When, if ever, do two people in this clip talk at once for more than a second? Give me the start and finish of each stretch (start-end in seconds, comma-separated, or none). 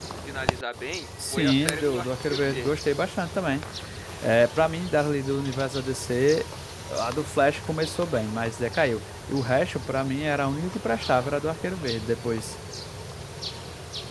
1.3-2.8